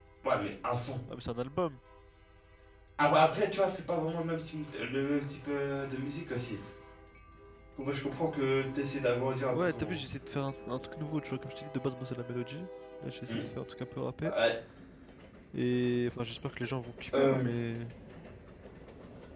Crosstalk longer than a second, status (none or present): none